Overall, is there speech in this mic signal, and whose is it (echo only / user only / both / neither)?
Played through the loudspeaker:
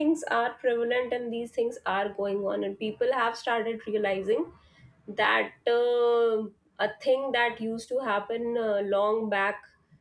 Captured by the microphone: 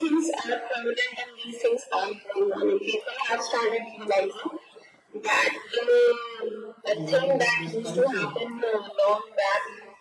both